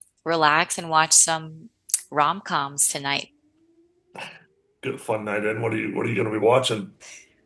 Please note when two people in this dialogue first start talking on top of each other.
none

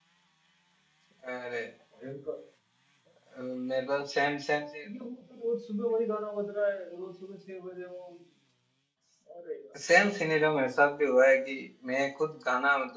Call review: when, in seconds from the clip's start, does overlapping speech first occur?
none

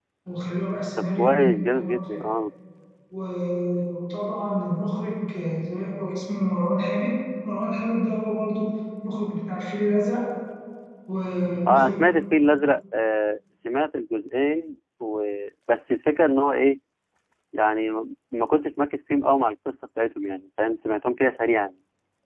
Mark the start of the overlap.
1 s

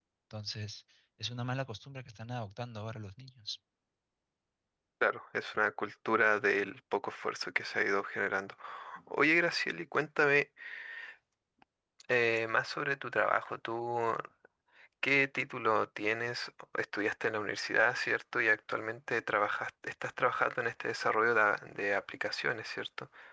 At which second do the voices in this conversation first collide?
none

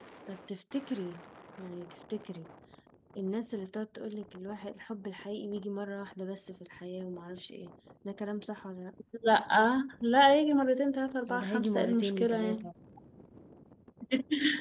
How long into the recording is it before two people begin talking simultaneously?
11 s

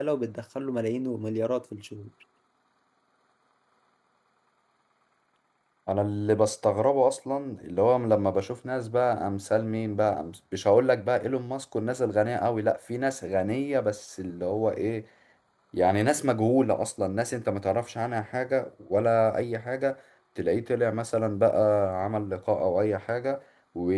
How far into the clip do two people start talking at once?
none

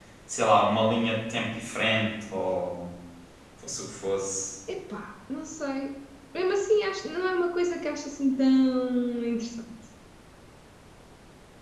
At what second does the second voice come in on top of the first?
none

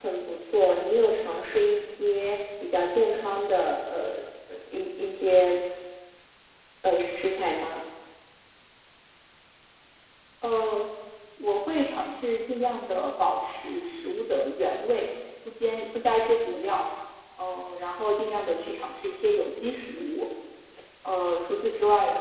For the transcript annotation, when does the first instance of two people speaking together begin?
none

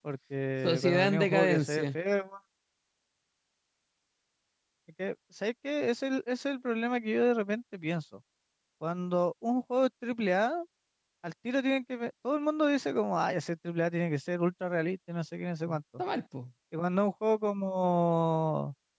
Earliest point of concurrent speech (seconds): 1 s

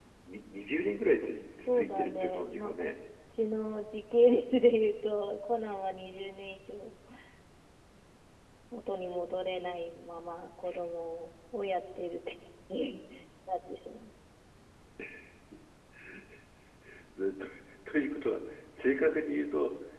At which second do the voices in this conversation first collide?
2 s

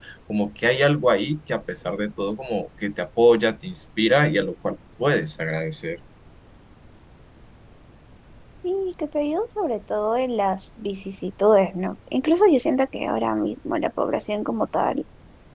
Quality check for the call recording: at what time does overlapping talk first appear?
none

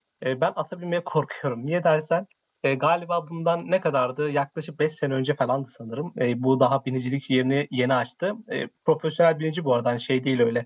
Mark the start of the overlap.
none

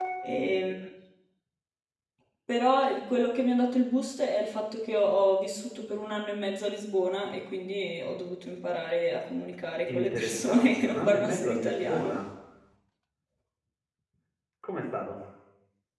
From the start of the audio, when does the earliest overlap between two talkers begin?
10 s

